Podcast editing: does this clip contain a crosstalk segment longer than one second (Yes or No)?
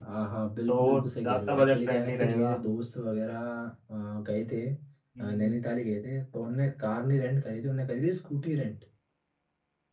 Yes